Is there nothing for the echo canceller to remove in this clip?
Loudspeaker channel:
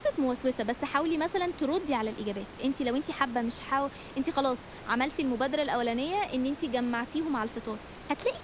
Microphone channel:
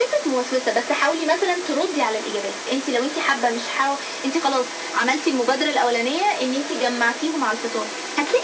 No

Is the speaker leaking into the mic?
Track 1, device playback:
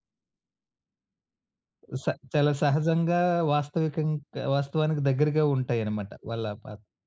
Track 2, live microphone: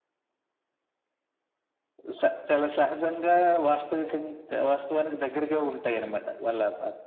Yes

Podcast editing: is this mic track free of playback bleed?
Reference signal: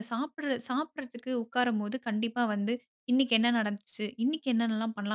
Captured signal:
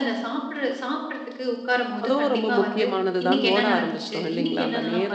No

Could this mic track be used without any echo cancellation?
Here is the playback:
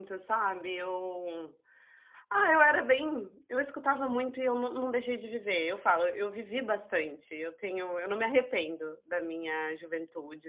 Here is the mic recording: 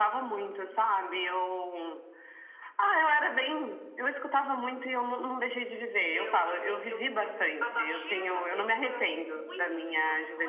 No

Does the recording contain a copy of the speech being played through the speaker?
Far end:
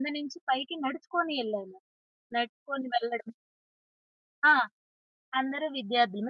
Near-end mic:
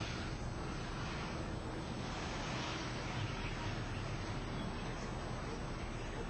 No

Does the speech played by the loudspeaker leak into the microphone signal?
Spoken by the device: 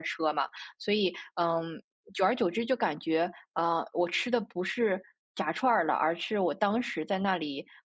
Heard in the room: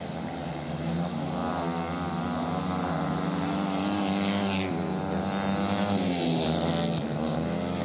No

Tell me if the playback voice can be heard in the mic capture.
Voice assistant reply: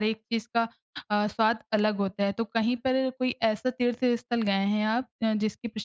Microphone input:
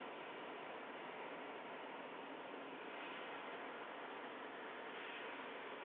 No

